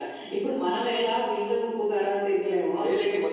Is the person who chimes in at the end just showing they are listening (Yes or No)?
No